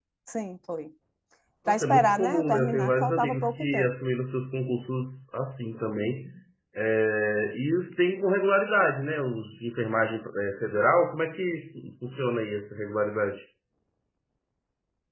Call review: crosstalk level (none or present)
present